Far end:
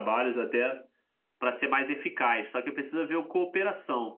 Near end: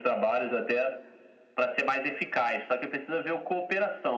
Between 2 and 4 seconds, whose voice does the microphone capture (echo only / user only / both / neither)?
echo only